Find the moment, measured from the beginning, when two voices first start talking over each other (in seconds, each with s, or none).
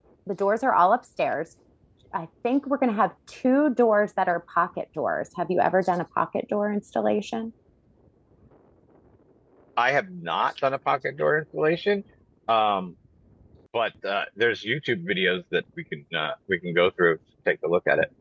none